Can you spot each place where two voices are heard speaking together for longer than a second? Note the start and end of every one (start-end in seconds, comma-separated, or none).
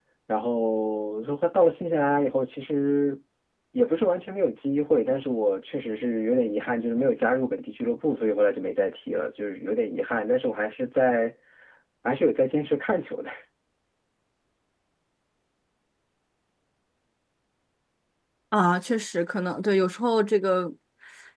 none